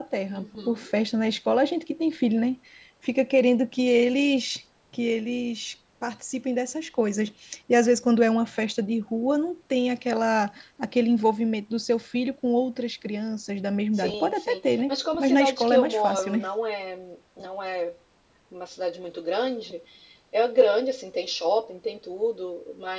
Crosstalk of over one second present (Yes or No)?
Yes